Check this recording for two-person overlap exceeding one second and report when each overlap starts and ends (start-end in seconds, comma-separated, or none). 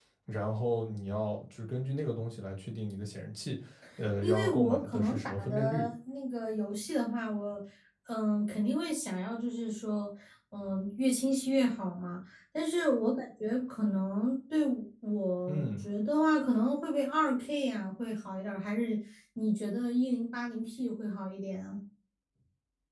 4.2-5.9